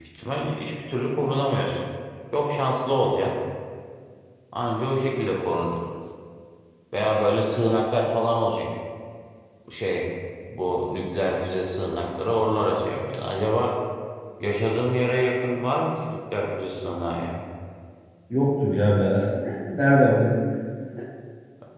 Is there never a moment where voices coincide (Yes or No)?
Yes